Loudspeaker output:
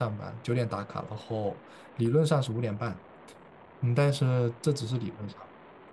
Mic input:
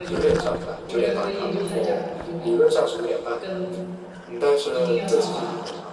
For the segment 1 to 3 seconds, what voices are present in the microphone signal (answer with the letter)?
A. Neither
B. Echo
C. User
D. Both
D